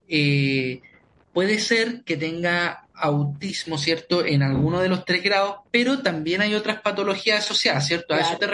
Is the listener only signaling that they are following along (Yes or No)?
No